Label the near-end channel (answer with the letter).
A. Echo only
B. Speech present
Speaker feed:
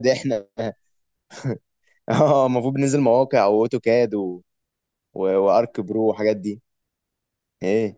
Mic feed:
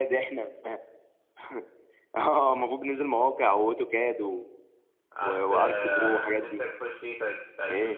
B